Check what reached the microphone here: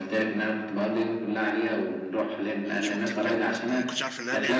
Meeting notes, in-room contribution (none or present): present